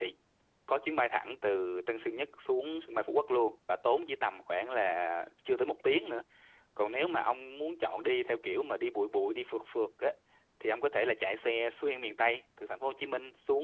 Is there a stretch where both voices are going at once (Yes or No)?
No